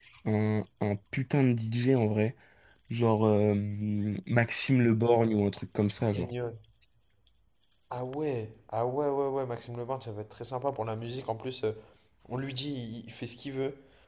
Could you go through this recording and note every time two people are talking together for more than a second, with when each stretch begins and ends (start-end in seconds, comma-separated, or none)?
none